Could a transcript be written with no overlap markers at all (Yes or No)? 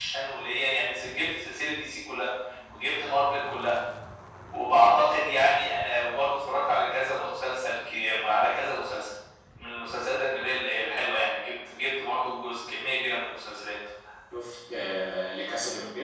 Yes